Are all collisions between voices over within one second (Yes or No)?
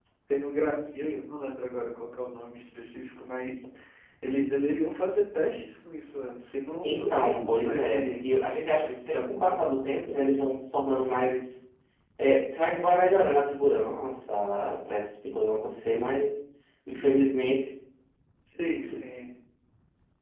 No